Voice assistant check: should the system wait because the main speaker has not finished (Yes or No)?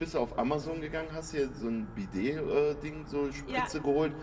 Yes